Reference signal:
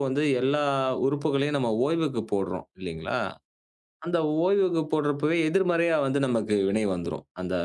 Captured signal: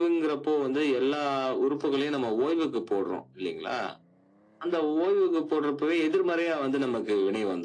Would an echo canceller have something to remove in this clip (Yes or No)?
Yes